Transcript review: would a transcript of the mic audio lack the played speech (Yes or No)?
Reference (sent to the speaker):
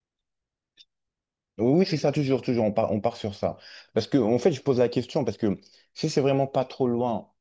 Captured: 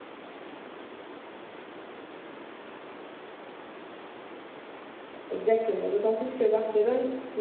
Yes